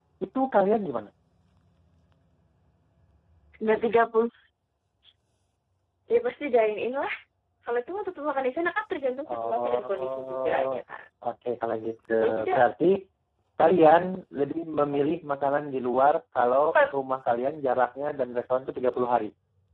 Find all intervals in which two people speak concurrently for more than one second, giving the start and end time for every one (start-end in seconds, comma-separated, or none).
9.3-10.7